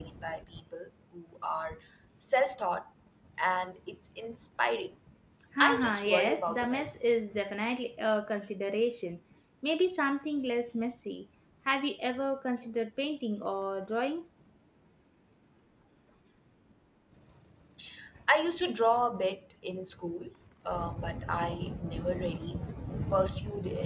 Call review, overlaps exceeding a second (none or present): present